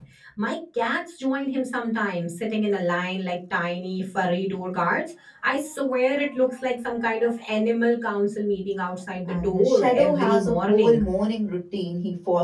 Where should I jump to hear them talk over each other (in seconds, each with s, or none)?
9.3 s